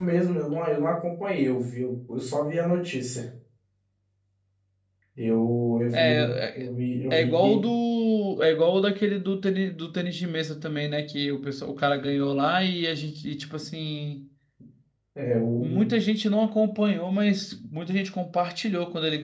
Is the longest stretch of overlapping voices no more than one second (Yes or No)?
Yes